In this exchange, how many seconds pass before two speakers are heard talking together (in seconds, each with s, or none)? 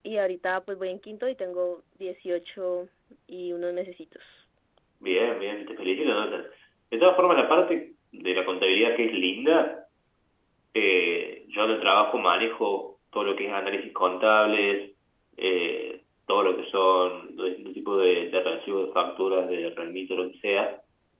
none